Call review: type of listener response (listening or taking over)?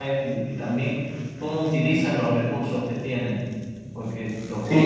taking over